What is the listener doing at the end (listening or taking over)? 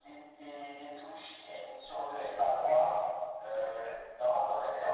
listening